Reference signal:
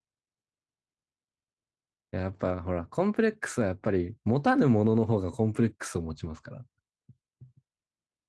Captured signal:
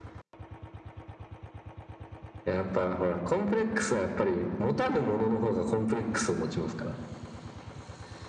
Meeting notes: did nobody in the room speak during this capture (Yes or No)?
Yes